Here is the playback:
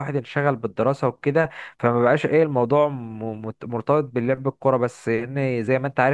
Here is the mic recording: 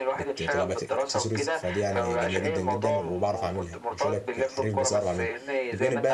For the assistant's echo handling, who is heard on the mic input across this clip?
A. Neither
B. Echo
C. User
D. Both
D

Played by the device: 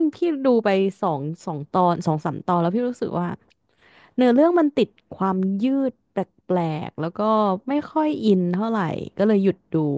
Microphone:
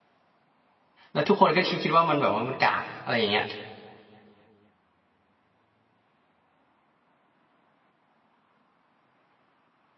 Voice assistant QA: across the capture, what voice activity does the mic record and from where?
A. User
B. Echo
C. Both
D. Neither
A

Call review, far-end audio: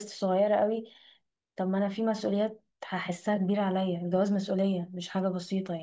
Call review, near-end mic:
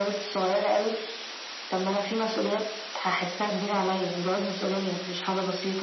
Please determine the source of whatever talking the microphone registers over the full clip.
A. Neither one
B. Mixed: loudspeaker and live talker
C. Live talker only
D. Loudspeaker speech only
D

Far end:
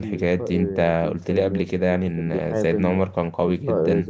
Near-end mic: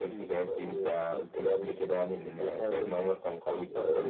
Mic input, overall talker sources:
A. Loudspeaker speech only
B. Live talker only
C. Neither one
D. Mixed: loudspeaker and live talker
A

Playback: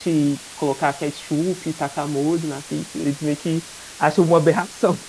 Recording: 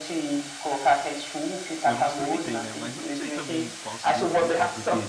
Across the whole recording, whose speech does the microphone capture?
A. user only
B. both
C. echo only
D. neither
B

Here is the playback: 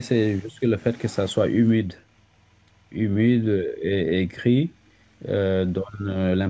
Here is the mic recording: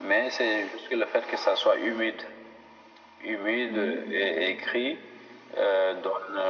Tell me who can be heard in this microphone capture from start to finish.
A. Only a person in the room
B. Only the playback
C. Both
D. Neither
C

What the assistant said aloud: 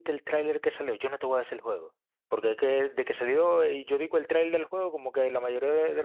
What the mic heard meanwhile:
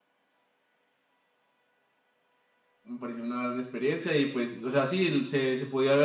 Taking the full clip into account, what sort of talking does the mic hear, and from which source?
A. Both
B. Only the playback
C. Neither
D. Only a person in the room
D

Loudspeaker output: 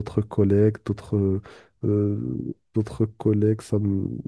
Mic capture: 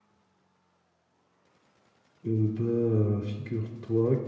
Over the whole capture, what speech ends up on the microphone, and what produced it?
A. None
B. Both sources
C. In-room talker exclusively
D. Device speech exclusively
C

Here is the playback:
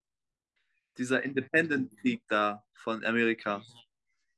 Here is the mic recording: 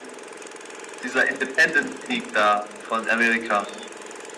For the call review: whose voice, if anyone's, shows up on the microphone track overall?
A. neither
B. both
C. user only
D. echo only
D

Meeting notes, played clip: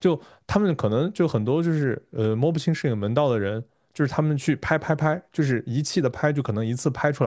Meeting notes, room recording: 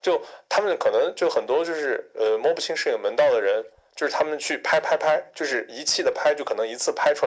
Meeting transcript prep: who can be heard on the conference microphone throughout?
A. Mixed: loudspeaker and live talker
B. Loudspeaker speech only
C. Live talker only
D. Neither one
B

